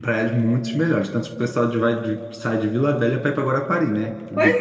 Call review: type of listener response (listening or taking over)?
taking over